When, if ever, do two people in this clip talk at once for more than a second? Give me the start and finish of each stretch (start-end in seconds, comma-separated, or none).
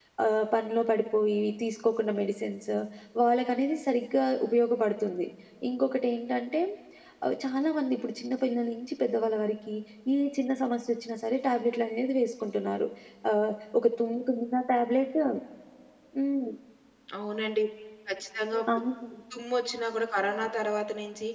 none